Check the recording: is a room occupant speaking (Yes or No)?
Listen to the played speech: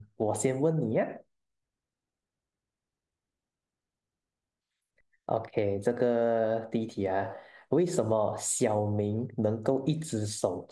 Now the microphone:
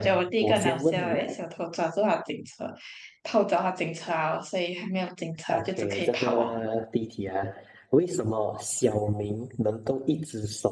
Yes